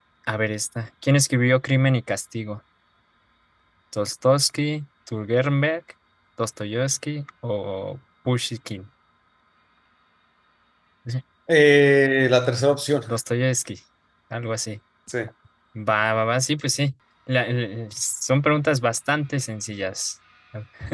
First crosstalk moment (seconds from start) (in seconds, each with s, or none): none